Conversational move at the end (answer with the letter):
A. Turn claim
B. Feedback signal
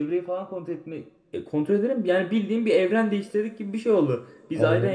B